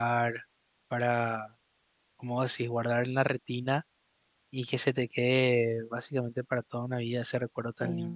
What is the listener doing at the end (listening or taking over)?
listening